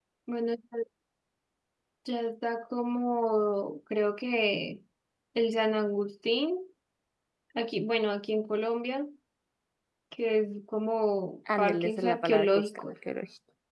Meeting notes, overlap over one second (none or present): present